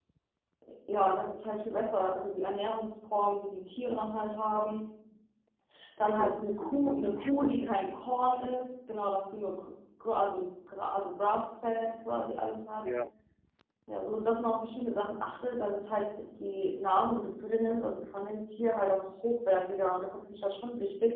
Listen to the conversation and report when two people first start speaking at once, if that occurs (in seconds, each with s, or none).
6.1 s